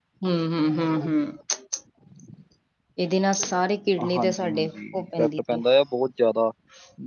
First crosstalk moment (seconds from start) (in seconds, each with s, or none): 4.0 s